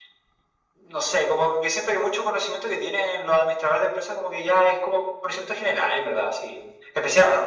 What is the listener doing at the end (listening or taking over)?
listening